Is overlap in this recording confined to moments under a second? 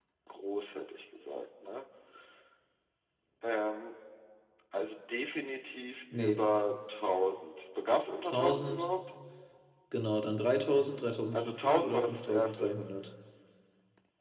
No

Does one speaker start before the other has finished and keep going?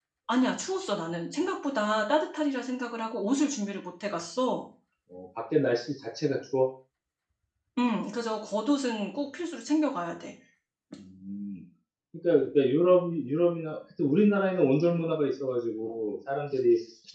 No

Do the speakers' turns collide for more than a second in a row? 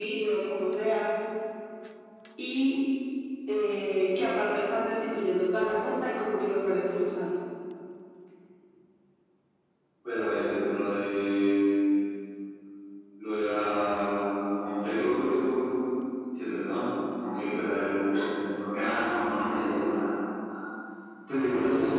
No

